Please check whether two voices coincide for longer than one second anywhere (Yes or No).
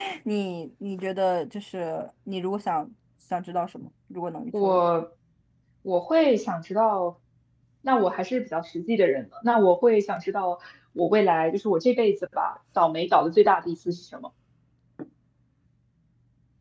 No